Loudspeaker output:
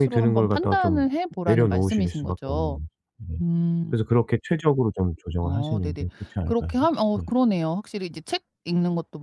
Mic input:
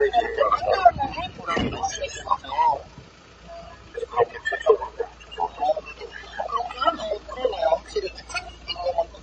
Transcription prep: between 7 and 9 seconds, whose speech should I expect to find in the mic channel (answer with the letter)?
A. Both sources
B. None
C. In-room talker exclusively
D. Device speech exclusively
D